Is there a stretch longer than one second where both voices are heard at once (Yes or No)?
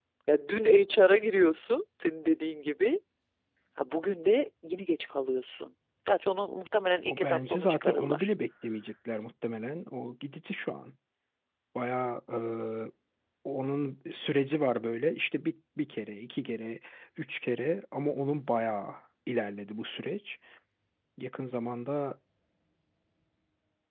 Yes